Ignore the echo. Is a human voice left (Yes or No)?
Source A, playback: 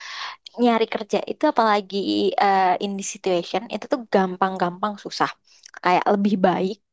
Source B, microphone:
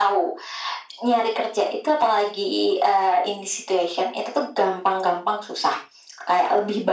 No